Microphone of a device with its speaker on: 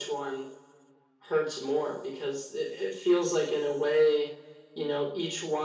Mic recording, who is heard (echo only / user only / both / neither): echo only